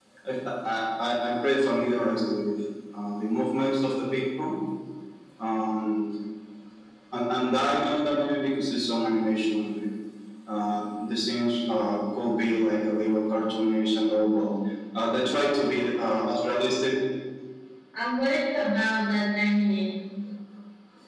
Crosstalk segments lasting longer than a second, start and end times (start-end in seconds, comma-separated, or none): none